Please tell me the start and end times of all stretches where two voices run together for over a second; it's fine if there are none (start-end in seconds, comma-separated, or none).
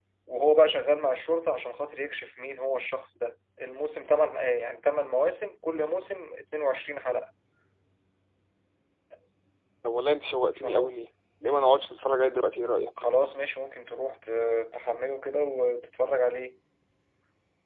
none